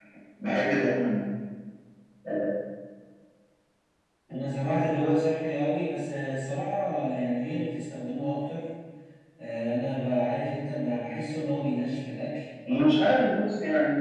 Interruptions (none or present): none